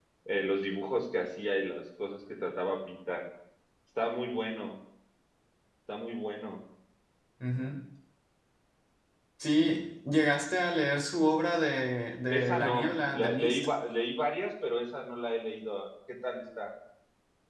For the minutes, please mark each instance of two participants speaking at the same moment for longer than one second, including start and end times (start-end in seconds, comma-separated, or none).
12.3-13.7